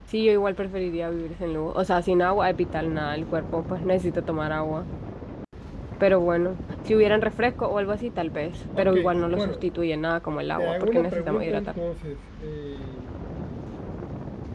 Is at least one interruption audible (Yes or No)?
Yes